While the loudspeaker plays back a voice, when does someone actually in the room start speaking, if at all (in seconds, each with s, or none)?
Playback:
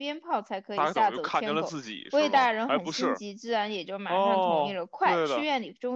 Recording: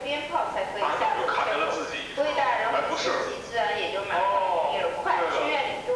none